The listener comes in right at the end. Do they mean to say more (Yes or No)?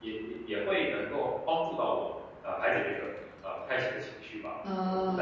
Yes